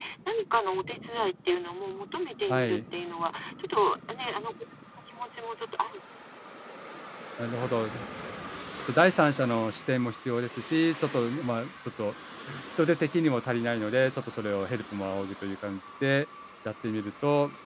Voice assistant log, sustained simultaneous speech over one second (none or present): none